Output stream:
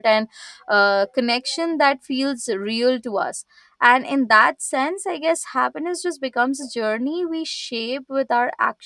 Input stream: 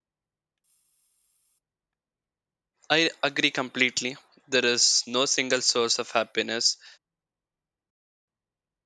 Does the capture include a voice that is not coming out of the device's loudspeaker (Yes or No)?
Yes